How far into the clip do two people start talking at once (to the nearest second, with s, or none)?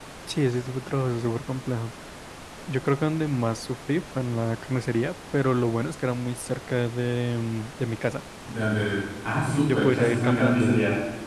9 s